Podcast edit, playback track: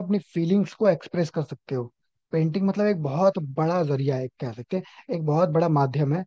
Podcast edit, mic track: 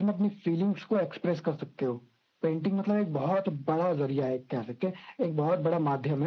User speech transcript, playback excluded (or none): none